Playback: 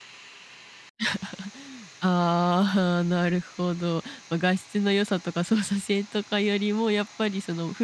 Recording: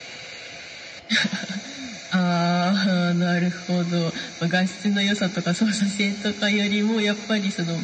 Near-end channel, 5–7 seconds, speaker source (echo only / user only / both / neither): echo only